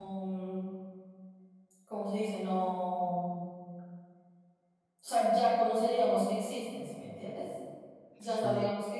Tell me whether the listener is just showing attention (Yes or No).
Yes